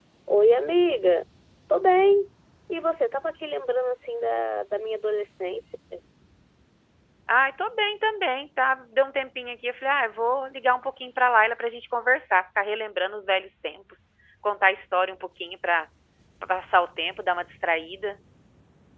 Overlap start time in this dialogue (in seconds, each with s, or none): none